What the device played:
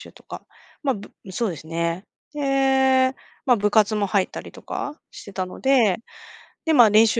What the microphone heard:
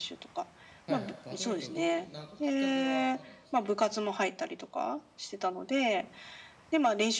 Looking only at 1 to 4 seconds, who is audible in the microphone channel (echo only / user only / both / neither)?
both